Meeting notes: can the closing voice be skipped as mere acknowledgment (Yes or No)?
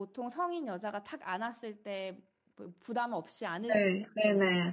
No